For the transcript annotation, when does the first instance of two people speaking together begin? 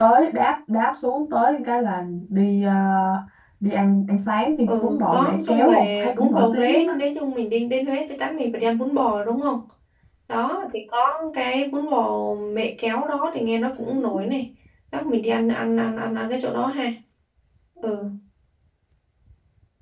4.7 s

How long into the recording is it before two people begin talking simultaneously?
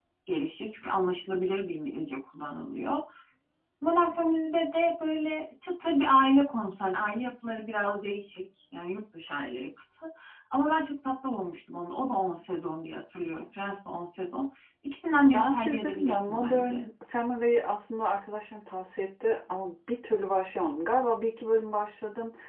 15.3 s

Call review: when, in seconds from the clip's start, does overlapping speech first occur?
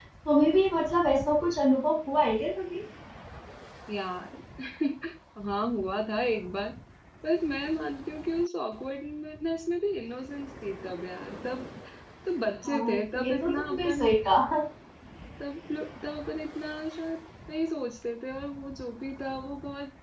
12.7 s

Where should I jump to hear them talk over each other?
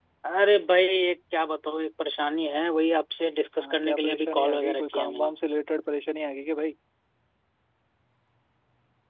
3.6 s

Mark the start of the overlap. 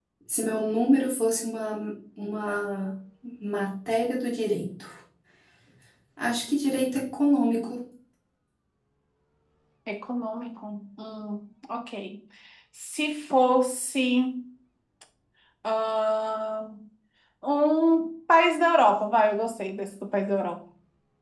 none

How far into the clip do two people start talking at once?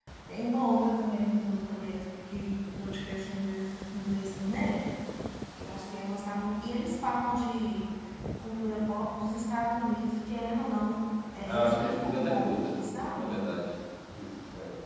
11.5 s

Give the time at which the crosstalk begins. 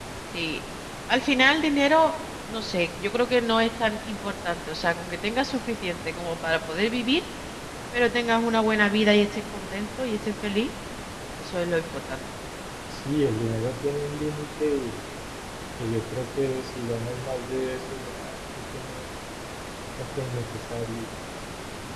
none

